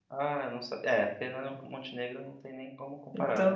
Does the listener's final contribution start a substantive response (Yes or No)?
Yes